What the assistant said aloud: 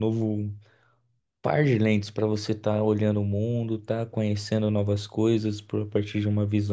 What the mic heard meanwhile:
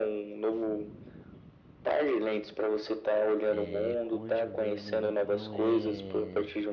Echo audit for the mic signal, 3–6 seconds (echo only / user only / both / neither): both